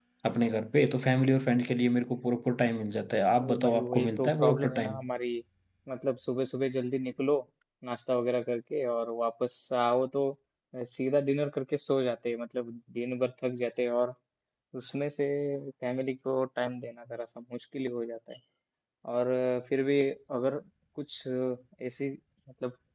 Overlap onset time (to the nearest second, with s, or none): 3 s